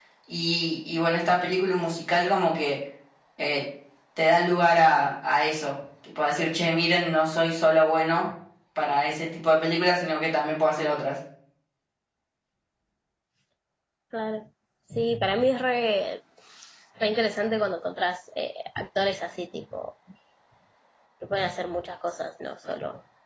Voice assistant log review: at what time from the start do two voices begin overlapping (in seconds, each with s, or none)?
none